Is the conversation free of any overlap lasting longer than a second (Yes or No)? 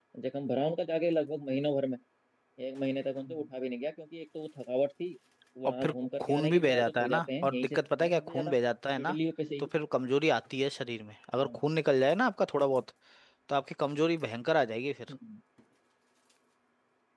No